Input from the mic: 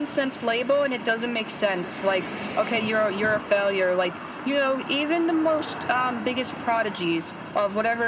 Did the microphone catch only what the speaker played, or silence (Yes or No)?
Yes